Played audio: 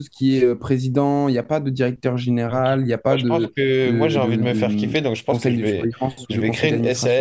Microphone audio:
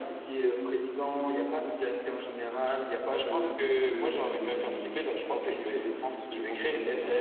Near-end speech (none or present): none